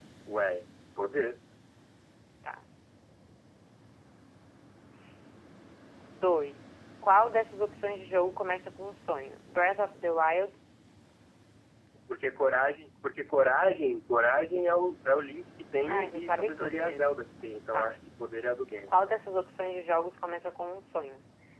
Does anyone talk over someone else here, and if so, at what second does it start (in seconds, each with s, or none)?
15.9 s